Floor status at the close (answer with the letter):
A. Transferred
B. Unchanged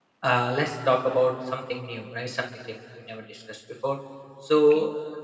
B